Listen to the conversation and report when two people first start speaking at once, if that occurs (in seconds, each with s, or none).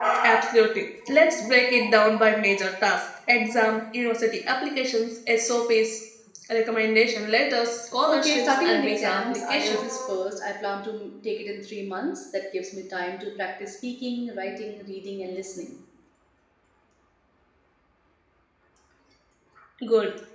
8.1 s